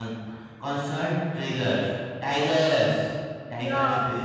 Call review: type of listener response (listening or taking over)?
taking over